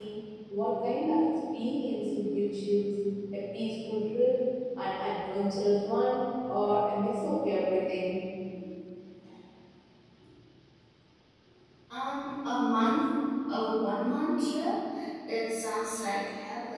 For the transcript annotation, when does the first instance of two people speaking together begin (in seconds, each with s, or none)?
none